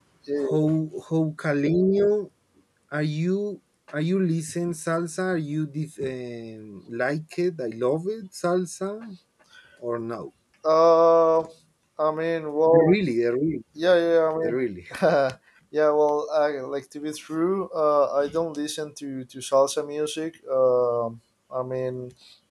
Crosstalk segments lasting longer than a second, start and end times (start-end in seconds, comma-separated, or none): none